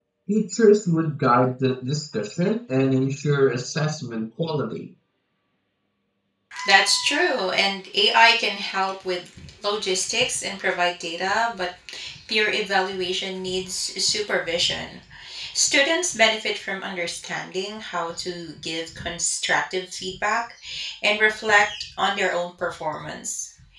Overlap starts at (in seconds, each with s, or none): none